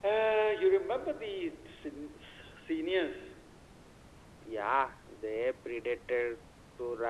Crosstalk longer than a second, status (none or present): none